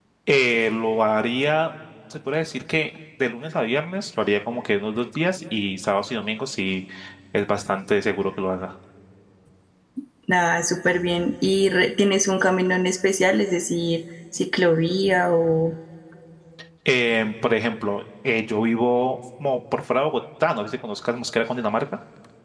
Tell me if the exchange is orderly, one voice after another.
Yes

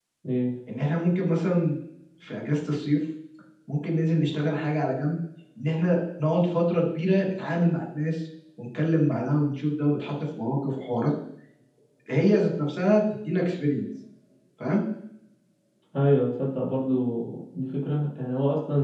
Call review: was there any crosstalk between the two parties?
No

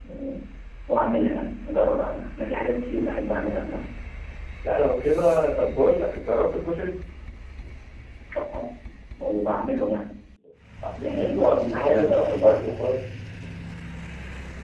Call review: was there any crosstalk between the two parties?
Yes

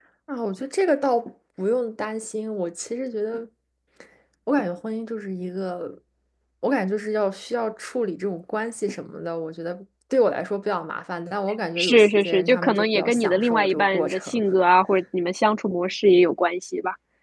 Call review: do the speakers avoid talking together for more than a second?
No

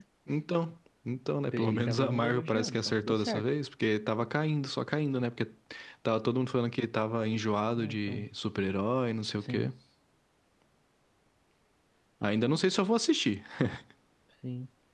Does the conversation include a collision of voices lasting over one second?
Yes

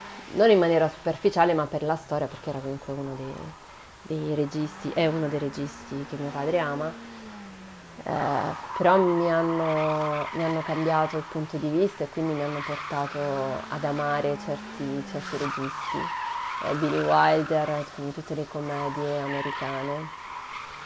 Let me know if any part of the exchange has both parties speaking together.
No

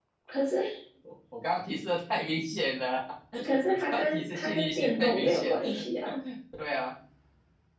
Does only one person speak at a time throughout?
No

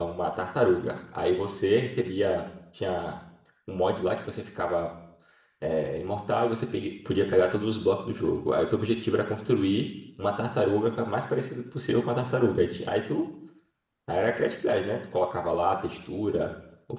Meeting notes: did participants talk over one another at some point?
No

